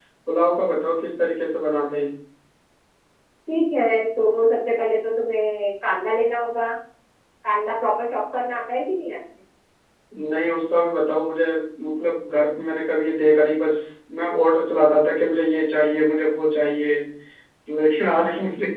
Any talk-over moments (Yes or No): No